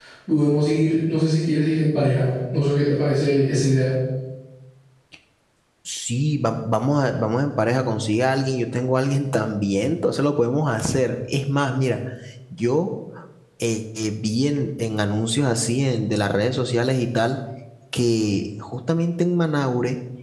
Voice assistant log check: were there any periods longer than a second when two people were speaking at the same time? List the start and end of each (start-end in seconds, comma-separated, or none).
none